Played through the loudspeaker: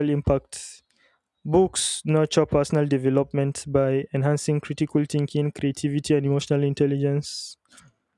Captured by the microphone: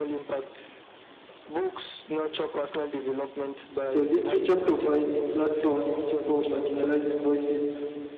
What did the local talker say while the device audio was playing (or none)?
So, literature provides platform for marginalized voices,